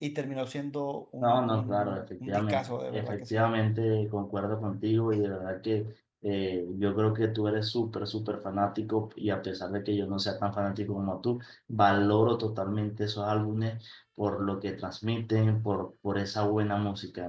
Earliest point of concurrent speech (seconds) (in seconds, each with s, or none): 1.2 s